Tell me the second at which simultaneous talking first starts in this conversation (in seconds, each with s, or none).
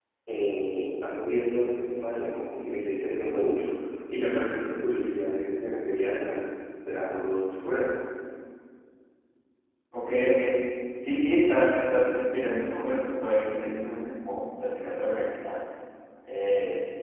none